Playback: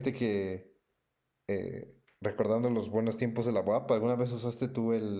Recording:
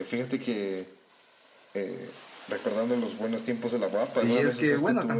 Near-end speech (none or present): present